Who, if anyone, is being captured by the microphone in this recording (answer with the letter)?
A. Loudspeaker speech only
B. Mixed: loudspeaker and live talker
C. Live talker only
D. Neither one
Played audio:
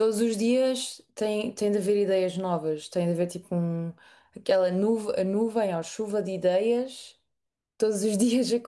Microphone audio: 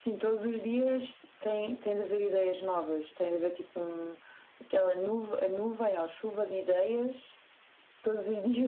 A